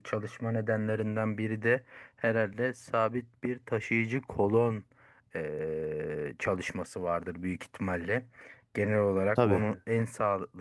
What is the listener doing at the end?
listening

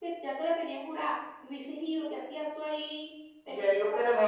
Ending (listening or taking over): taking over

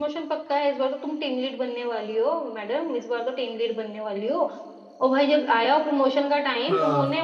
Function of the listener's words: listening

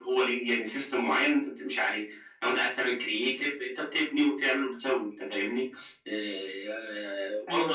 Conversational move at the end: listening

